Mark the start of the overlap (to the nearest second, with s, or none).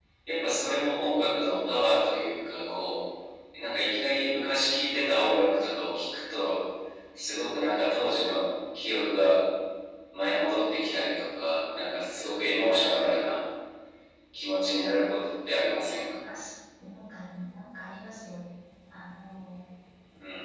none